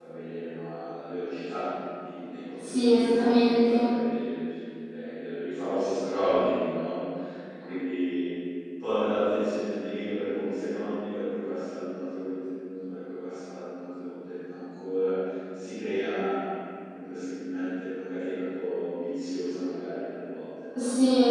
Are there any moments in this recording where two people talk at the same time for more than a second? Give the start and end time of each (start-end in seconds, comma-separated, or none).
2.6-3.9